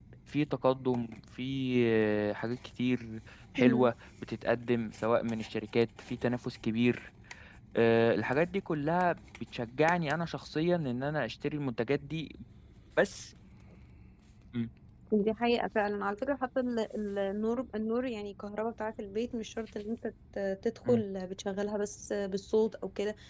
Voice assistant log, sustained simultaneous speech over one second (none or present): none